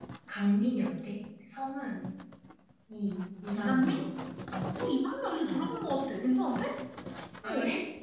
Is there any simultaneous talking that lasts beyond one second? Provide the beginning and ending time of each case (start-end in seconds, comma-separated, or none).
none